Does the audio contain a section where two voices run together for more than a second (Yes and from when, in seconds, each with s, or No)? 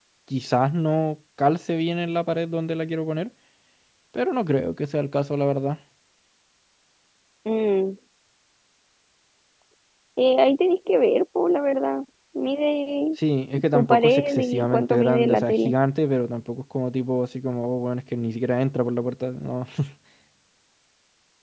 Yes, from 13.7 s